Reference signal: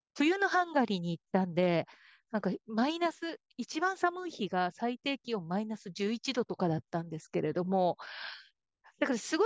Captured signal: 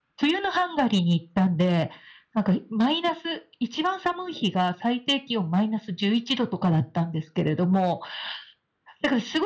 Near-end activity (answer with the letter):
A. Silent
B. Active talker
A